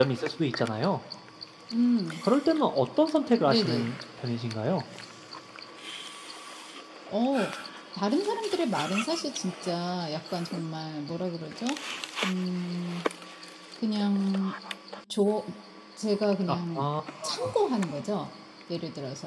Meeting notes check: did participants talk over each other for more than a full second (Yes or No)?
No